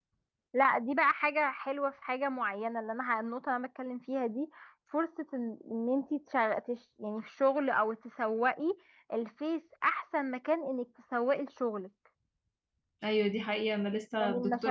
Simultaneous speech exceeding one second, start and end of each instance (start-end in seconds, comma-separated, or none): none